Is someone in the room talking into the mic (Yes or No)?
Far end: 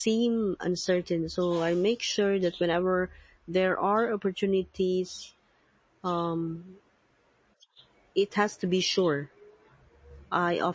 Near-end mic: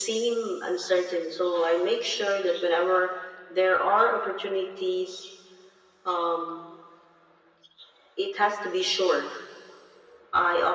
No